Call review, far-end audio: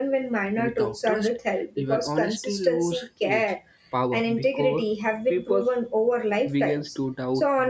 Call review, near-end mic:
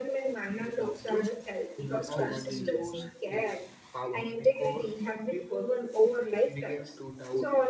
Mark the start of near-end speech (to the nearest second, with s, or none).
2 s